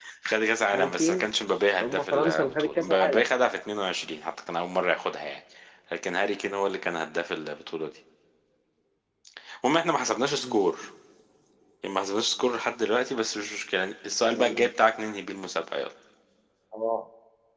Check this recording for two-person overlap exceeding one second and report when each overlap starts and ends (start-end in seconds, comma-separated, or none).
1.7-3.2